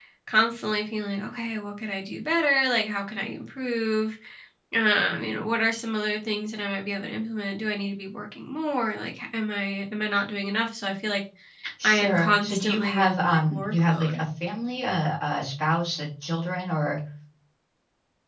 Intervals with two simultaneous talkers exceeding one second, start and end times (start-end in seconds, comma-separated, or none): 11.8-14.2